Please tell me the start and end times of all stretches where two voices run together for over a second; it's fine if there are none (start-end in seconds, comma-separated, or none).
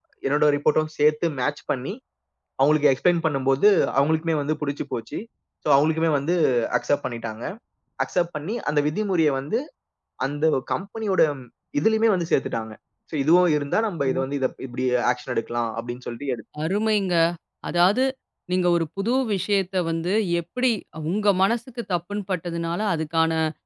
none